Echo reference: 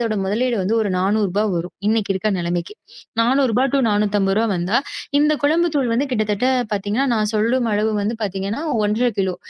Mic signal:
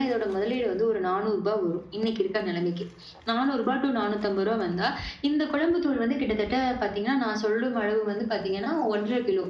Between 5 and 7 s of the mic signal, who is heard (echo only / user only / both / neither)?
echo only